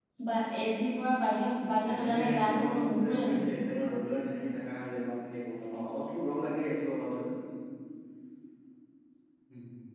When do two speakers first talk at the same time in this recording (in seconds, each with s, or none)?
1.9 s